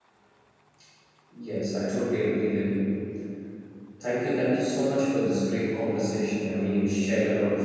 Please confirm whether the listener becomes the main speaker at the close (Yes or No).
Yes